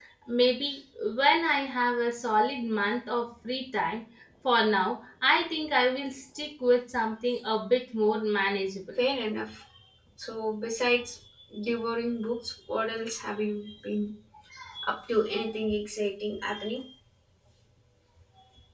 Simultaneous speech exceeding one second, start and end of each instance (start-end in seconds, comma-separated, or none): none